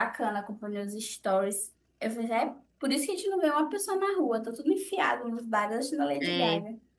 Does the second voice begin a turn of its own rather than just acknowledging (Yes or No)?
Yes